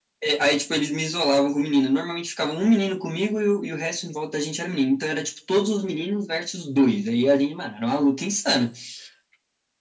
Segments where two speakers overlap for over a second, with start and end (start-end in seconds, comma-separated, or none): none